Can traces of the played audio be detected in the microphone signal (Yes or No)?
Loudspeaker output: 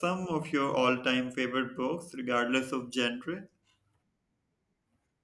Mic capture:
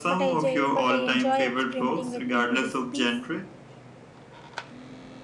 Yes